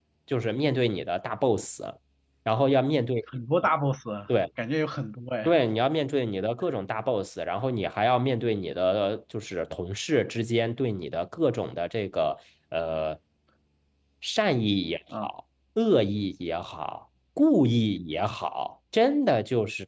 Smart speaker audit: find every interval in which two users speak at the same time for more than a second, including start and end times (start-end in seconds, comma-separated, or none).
none